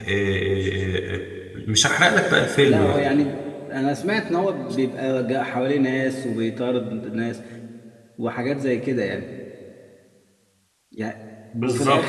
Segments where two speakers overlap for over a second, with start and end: none

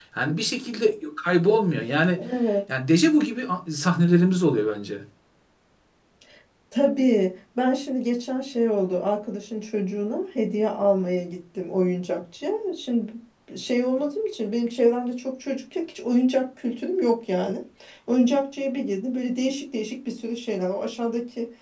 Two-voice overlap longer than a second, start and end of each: none

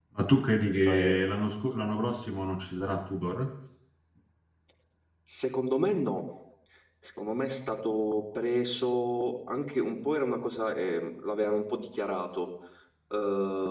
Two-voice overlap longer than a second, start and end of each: none

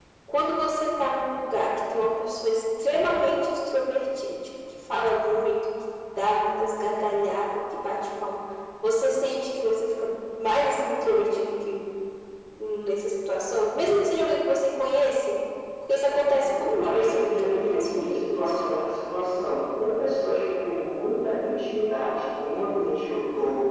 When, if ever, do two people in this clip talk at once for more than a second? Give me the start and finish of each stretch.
16.4-18.6

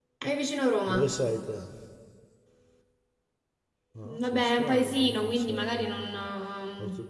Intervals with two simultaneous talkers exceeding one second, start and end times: 4.1-6.2

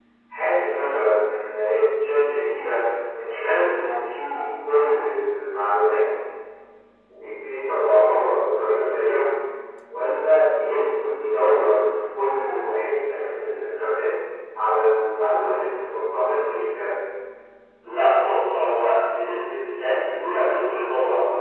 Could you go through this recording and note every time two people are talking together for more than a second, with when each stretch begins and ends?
none

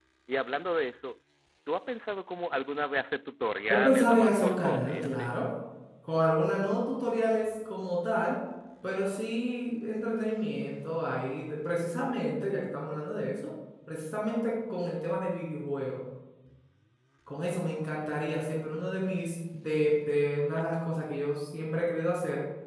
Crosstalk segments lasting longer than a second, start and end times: 3.7-5.3

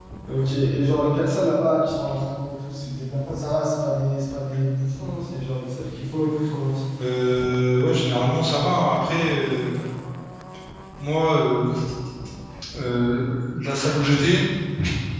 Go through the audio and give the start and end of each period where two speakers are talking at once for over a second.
none

